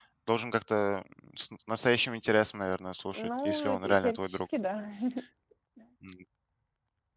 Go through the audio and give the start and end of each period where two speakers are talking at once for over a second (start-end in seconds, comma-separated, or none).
3.1-4.4